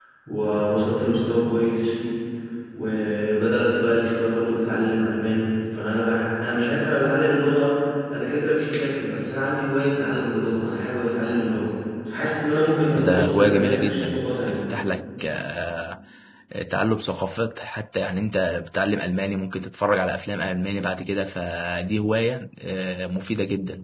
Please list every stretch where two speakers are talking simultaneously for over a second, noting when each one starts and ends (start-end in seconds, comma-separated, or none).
13.0-14.6